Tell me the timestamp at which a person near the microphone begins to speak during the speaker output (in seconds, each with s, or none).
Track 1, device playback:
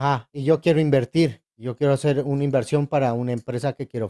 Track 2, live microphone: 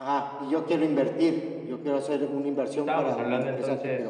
2.8 s